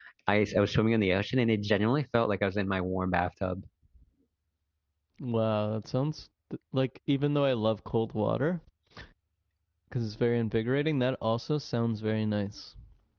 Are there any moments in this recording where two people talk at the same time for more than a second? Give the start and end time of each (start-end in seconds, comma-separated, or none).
none